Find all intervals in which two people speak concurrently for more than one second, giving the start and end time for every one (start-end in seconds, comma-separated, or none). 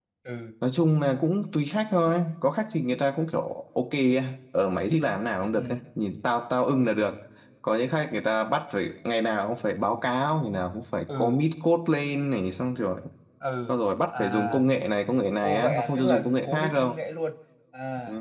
15.4-16.9